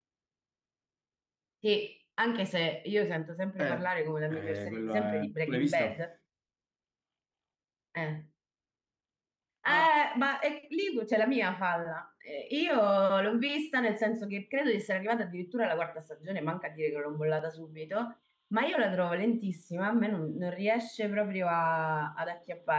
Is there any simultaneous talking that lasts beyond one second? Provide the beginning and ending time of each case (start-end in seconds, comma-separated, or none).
4.3-5.9